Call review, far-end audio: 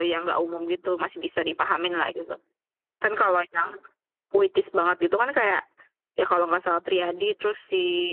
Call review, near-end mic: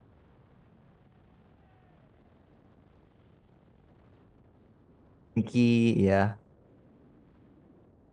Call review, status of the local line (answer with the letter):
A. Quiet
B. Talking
B